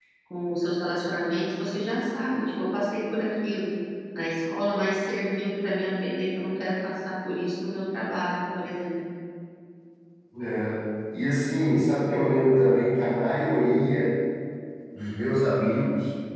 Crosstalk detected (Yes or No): No